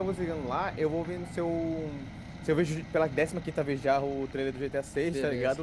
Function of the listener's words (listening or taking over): listening